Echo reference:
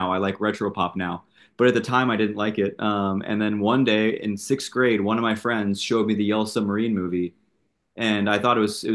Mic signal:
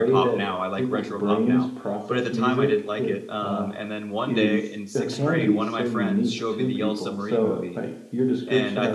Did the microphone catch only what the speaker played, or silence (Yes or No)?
No